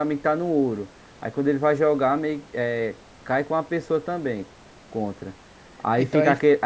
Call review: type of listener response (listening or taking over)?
listening